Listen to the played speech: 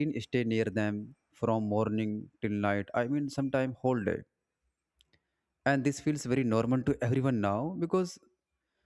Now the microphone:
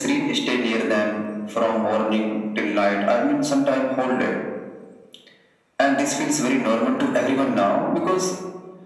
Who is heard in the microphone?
echo only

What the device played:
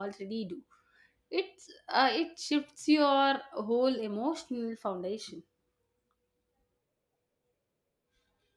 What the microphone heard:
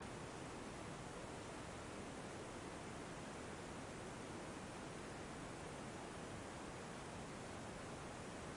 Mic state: neither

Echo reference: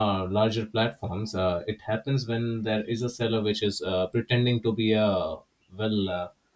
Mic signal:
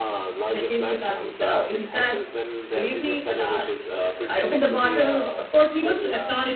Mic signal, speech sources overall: both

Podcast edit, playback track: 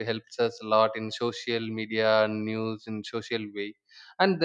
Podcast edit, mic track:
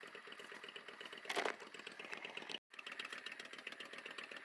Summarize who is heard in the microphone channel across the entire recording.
neither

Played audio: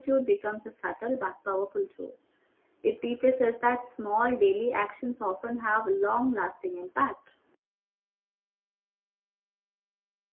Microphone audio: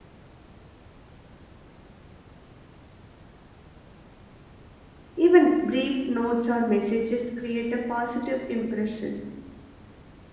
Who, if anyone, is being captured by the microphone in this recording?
user only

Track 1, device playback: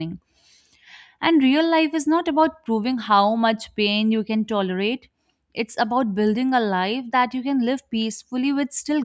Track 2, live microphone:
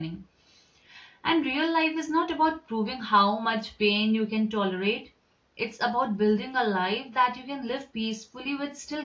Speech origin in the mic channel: echo only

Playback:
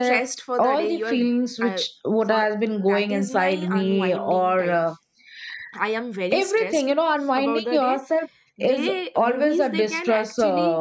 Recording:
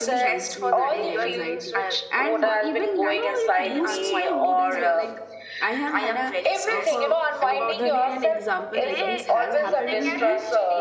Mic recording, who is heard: both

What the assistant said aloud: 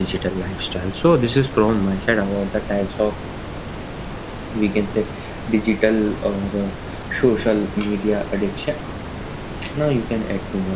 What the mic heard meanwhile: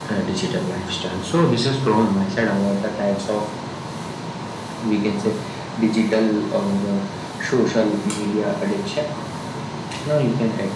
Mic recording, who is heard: echo only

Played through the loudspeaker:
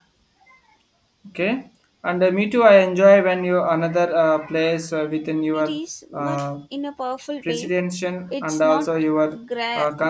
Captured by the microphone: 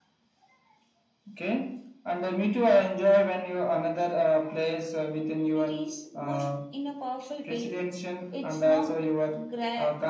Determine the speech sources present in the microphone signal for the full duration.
echo only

